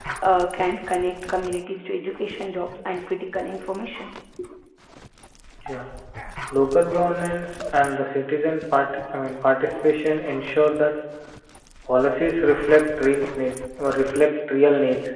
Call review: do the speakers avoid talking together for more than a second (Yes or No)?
Yes